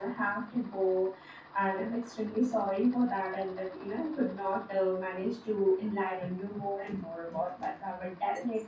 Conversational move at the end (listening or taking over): taking over